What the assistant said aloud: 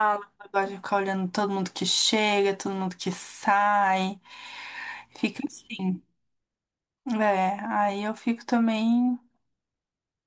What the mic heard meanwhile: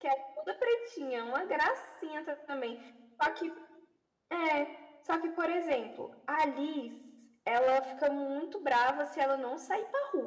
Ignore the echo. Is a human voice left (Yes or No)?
Yes